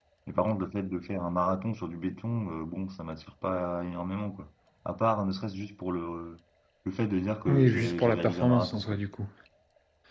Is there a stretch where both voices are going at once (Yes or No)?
Yes